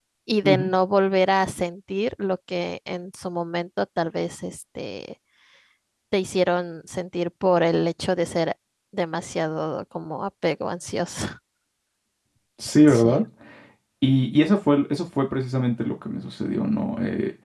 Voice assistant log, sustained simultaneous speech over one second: none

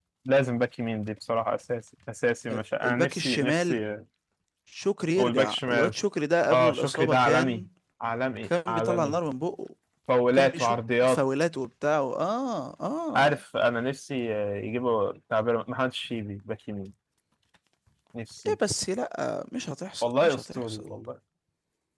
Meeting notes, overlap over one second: present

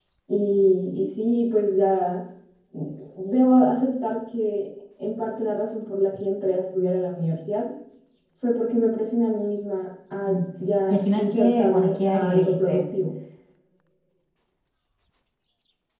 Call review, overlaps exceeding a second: present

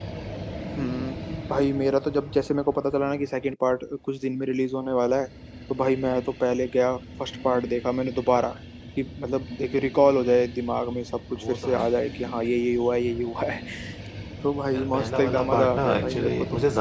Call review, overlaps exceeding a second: present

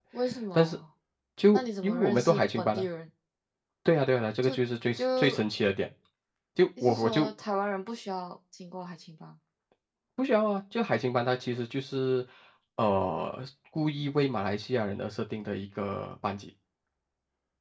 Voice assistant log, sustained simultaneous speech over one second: present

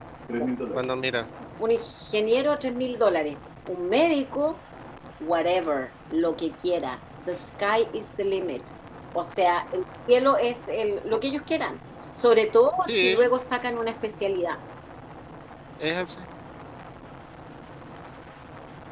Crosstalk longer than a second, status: none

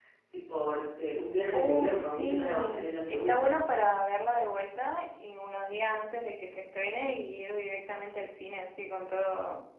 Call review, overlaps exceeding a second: present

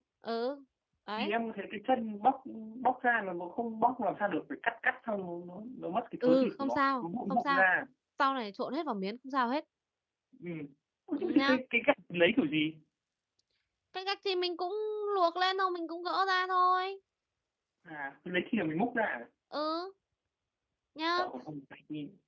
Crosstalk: present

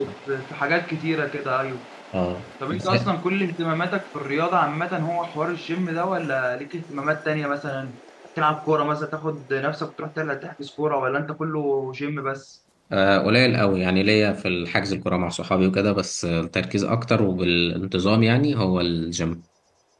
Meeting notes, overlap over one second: none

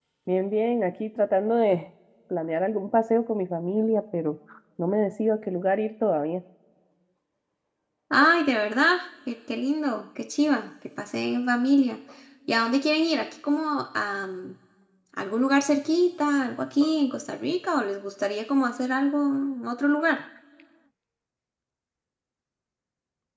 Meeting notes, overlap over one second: none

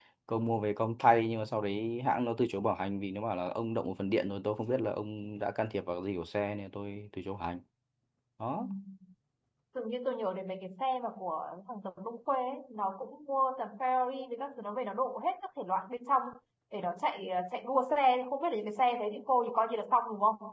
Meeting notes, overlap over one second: none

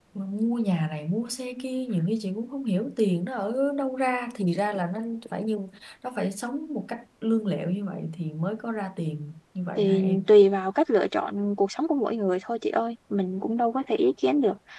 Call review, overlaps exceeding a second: none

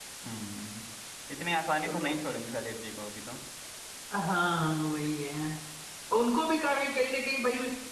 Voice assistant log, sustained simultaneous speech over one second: none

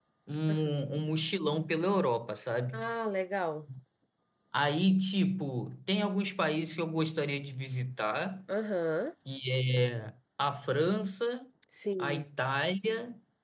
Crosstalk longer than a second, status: none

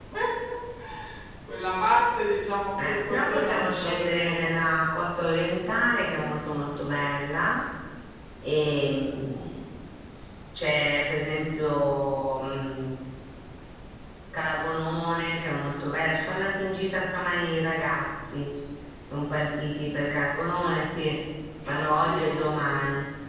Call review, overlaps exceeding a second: present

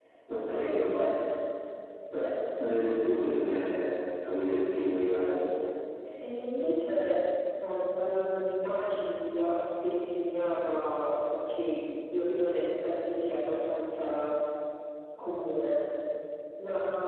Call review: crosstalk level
none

